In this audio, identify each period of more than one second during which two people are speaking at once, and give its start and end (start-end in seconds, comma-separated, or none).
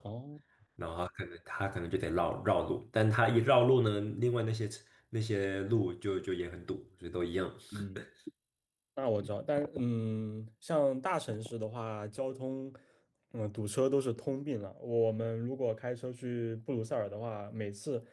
none